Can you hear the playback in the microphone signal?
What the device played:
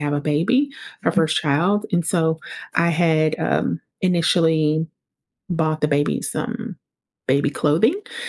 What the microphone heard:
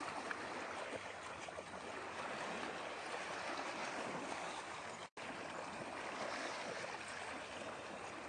No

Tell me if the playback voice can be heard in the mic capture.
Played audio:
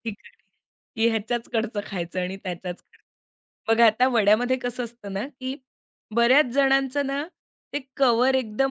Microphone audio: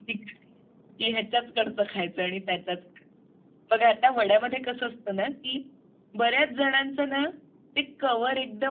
Yes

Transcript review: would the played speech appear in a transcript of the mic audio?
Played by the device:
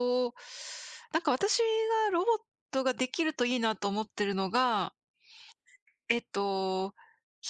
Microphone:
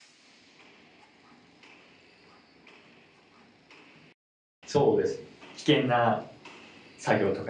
No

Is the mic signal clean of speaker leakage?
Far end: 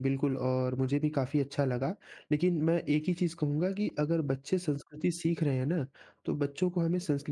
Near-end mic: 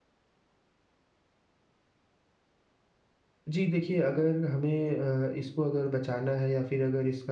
Yes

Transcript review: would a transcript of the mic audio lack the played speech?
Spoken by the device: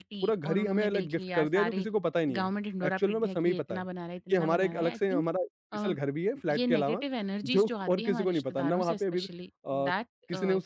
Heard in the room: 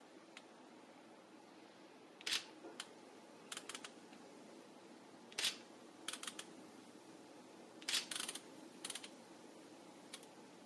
Yes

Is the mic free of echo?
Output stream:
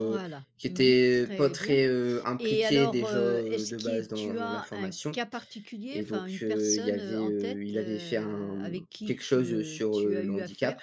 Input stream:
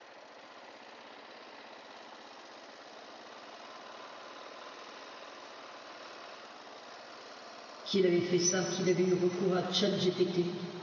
Yes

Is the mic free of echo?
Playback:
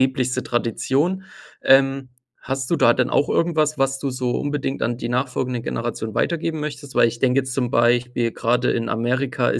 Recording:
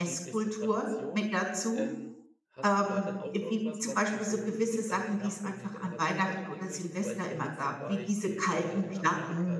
No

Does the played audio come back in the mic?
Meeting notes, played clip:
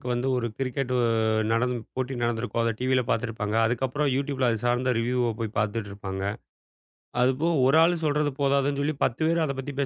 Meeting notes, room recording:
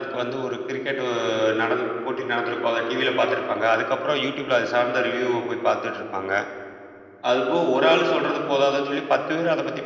Yes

